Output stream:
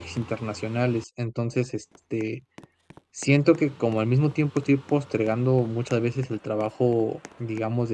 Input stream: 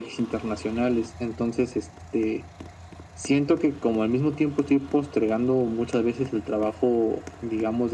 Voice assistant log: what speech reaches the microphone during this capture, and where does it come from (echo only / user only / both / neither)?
echo only